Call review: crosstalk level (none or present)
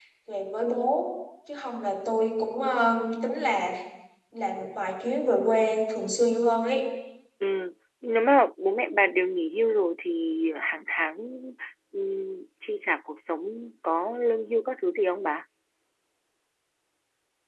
none